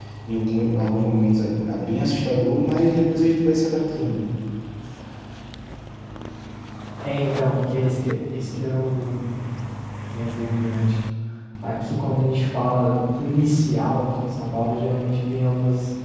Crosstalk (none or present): none